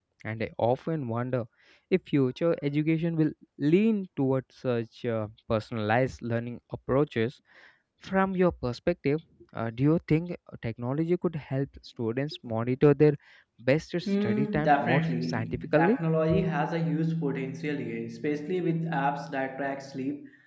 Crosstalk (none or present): present